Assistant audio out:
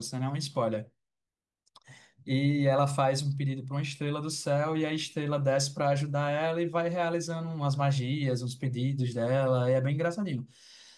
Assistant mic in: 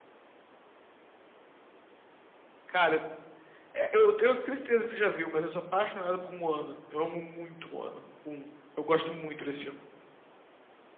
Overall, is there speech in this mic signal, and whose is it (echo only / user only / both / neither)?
user only